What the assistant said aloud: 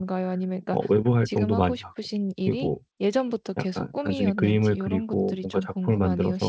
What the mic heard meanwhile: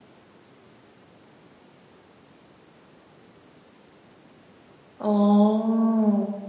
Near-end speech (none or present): present